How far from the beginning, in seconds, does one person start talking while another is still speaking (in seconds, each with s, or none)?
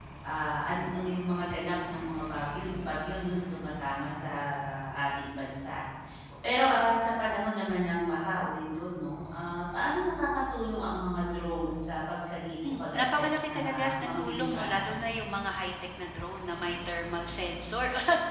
12.6 s